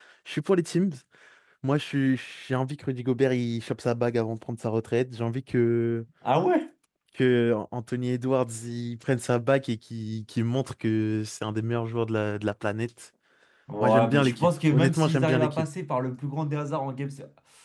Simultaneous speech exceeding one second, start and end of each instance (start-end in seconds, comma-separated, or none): 13.8-15.6